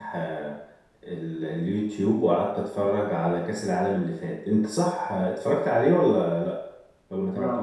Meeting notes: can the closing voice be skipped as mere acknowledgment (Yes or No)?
No